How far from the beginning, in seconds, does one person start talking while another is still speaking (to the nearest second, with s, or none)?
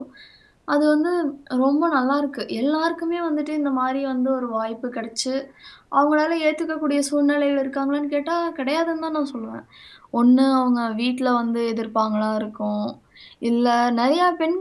none